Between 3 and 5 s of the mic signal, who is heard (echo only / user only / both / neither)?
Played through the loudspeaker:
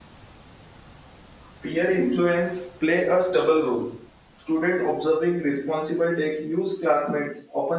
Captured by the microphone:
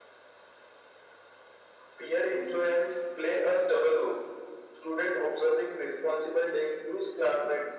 echo only